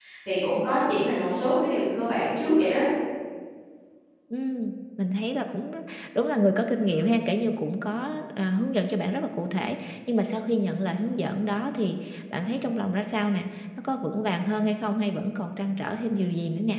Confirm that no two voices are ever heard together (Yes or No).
Yes